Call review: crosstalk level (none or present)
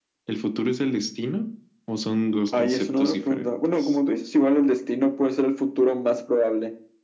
present